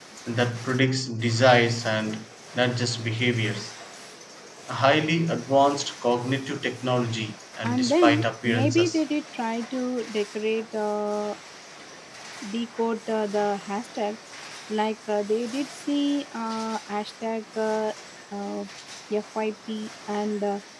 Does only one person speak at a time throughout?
No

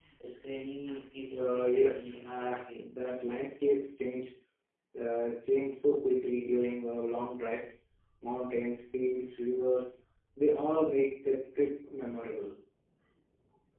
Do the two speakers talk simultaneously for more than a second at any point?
Yes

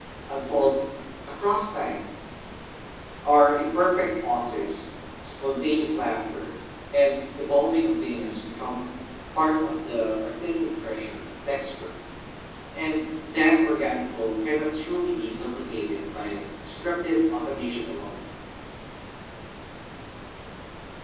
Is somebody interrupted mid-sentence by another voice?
No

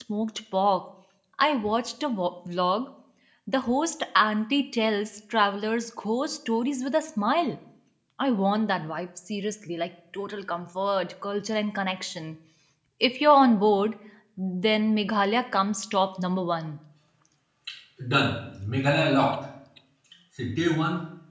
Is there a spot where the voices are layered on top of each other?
No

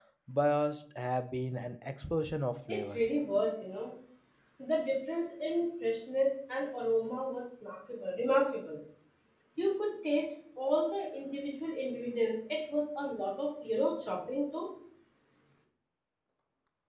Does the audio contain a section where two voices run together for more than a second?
No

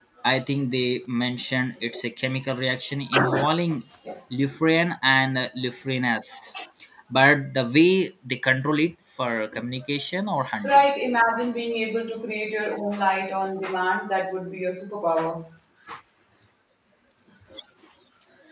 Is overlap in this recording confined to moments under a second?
Yes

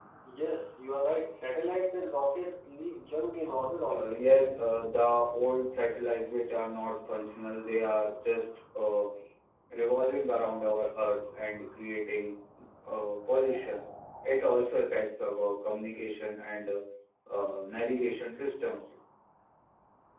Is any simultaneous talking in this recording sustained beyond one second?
No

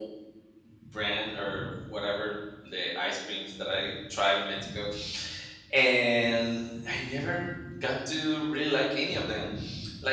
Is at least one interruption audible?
No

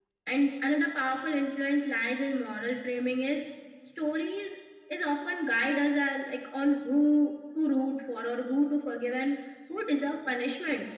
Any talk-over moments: No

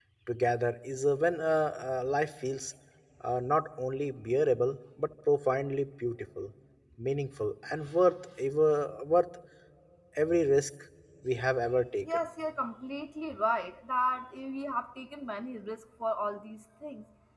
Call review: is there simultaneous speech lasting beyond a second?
No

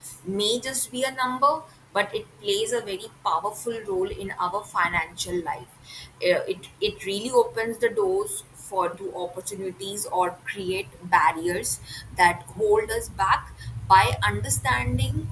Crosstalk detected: No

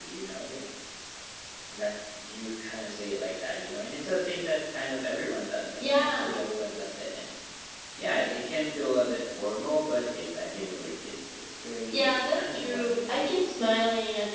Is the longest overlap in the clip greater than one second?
Yes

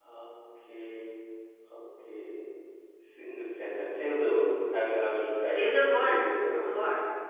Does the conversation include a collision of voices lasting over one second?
Yes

